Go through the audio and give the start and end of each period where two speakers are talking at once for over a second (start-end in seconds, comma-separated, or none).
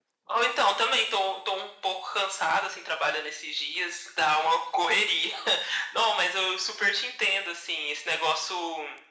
none